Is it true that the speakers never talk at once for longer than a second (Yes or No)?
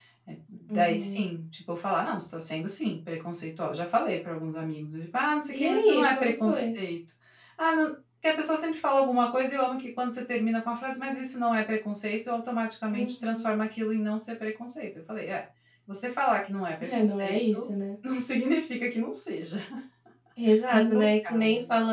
No